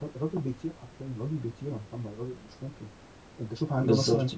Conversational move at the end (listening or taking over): listening